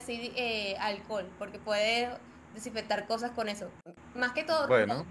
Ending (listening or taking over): listening